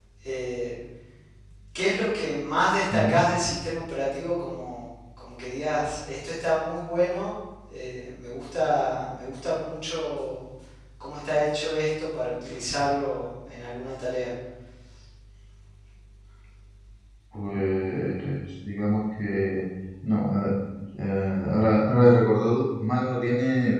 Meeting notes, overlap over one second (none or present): none